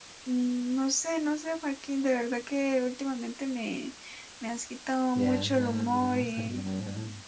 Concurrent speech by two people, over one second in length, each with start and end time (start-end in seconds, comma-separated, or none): 5.2-6.6